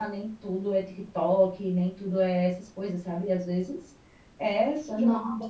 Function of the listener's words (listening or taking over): listening